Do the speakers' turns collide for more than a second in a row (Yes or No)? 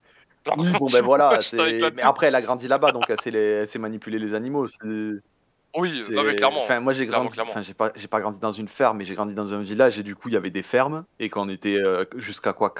Yes